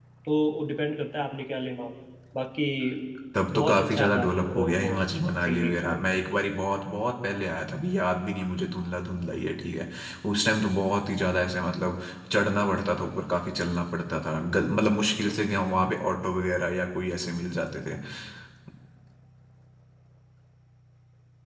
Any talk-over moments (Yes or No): Yes